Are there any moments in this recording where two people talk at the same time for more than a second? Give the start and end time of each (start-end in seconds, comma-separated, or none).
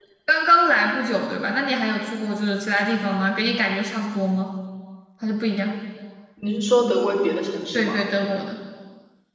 none